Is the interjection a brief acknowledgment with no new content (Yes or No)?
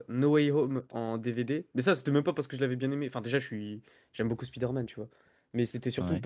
Yes